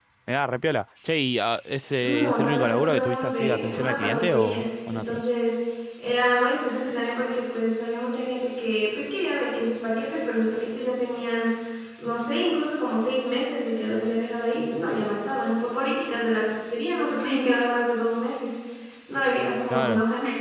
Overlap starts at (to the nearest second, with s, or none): 2 s